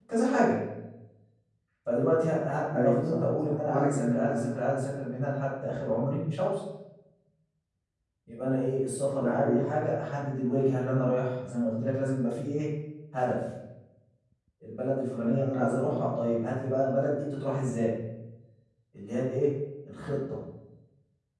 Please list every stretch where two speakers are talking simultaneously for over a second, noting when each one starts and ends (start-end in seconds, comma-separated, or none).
2.8-4.5